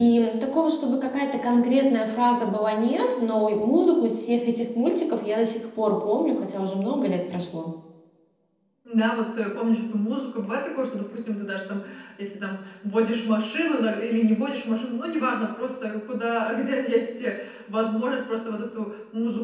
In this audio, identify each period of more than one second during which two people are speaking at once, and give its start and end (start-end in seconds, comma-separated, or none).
none